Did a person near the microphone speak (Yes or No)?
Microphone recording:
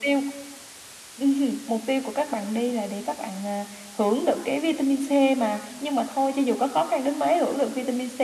No